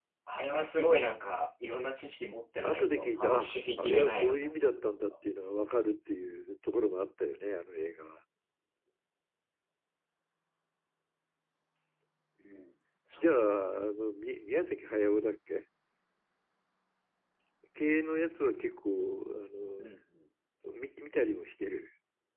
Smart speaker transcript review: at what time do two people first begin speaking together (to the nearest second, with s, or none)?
3 s